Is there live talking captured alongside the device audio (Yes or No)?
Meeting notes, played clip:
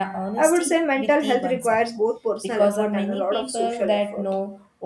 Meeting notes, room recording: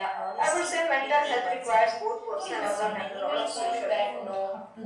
Yes